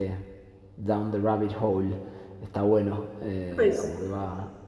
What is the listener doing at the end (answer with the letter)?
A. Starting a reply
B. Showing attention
B